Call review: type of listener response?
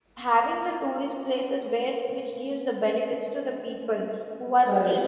taking over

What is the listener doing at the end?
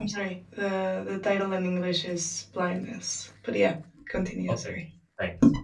taking over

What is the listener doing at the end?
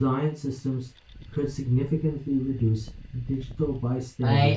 taking over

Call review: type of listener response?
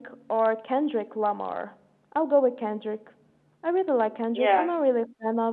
listening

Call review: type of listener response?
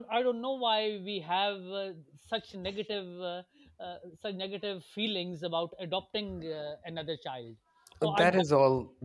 taking over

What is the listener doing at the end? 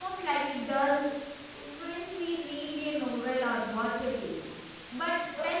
listening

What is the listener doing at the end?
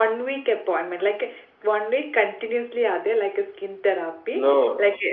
listening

